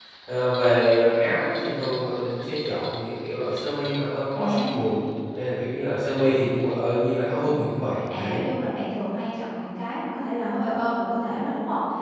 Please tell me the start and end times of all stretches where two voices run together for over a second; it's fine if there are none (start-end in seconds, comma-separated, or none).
none